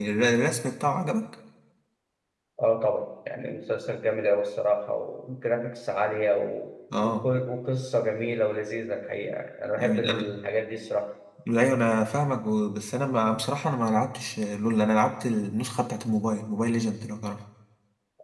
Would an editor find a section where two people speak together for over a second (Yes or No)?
No